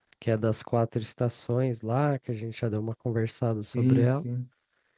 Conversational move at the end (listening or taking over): taking over